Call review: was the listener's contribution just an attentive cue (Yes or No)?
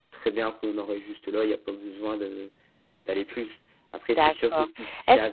No